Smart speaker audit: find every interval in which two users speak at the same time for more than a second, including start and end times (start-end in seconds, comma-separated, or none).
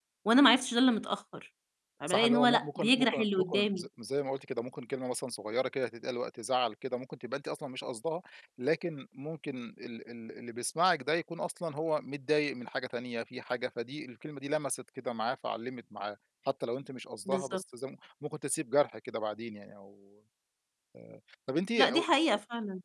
2.1-3.9